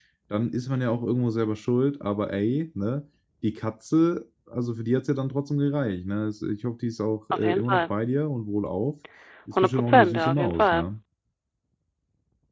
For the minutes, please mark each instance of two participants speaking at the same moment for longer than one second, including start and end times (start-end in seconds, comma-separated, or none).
9.6-10.8